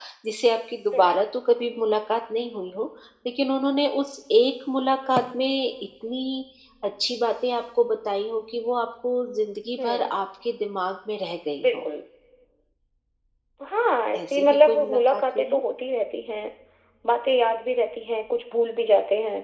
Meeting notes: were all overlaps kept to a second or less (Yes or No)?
No